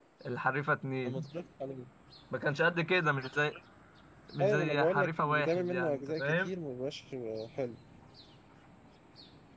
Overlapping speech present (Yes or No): Yes